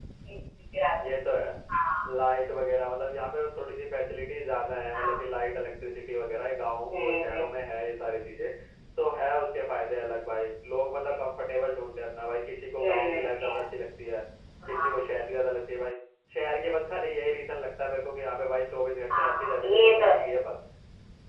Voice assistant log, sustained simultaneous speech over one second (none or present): present